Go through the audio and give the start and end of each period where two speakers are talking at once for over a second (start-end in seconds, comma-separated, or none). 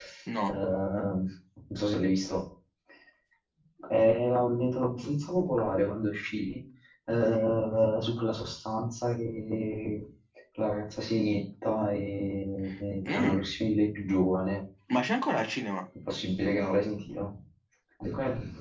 none